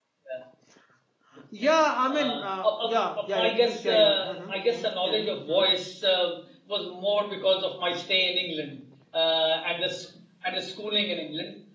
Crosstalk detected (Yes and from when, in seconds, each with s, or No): Yes, from 2.1 s